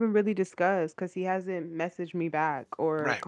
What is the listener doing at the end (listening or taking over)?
taking over